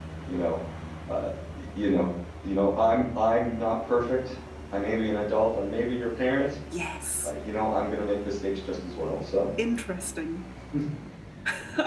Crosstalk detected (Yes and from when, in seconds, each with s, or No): No